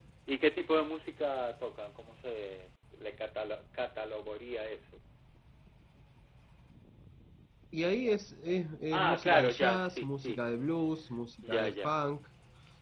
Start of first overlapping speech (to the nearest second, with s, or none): 9 s